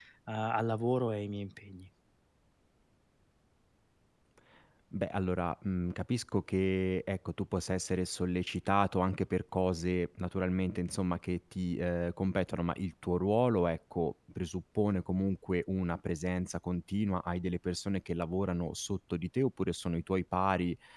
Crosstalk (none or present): none